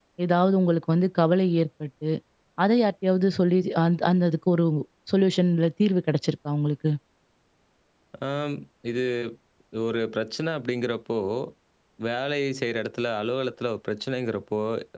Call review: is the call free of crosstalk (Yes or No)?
Yes